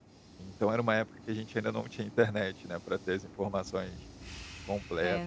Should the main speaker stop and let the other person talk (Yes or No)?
No